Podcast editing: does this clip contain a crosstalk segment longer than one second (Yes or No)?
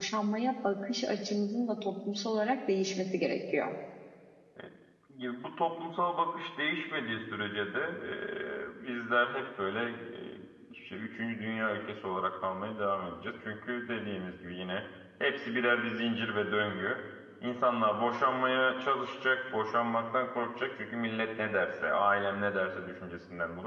No